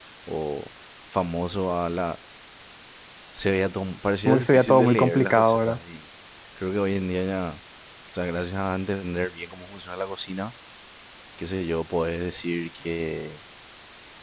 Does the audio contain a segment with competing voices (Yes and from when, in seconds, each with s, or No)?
Yes, from 4.2 s